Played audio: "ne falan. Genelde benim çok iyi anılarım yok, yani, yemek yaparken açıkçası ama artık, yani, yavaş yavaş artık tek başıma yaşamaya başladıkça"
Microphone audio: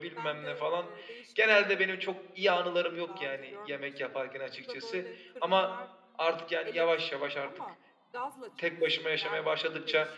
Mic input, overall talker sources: both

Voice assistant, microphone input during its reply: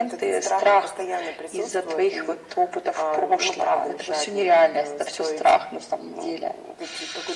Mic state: echo only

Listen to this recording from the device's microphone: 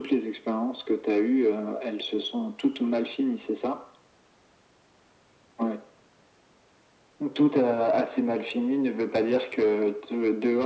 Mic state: echo only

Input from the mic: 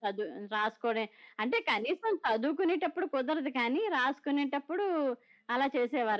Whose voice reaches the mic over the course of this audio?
echo only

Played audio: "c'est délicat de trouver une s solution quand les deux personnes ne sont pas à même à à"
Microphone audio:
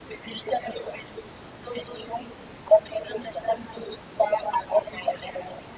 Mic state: echo only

